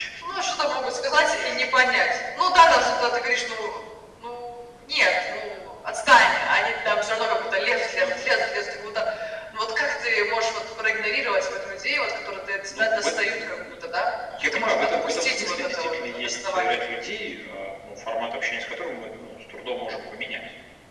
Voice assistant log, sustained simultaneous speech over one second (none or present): present